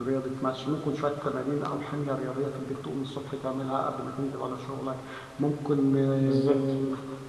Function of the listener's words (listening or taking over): listening